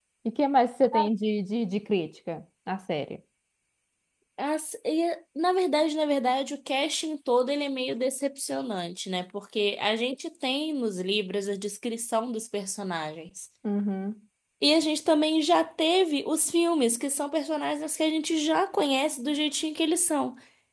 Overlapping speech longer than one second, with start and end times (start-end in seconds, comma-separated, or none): none